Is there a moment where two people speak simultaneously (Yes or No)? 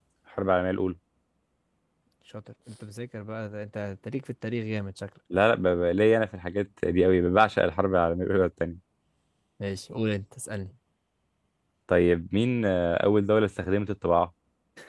No